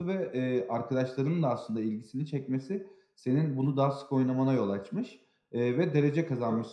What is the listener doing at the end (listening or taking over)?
listening